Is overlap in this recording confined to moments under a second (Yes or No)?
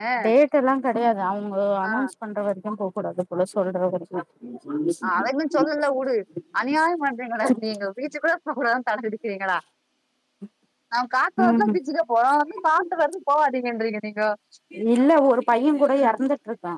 Yes